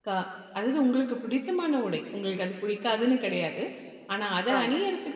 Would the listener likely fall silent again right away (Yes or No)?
Yes